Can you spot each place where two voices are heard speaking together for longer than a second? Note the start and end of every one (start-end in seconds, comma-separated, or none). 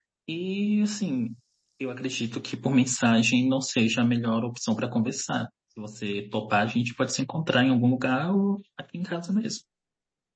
none